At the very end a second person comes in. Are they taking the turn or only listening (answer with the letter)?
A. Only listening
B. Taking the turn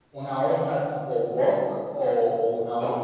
B